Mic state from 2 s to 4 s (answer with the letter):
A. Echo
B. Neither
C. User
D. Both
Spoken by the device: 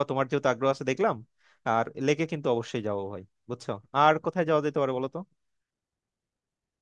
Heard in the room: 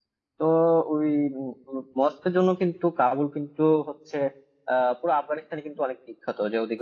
C